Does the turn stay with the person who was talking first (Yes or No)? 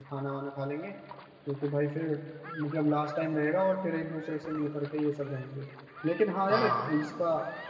Yes